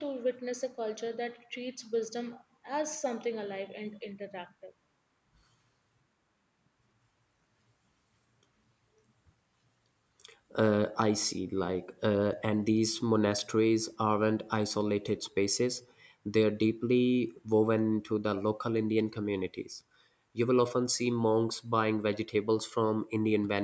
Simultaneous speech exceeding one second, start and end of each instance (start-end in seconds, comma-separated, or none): none